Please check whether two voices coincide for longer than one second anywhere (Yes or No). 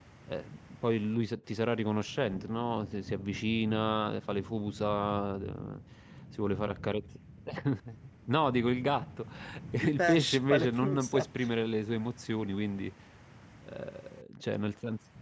Yes